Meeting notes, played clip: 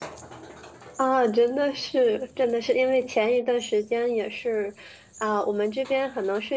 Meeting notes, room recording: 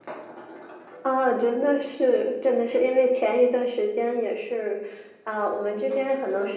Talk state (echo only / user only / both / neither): echo only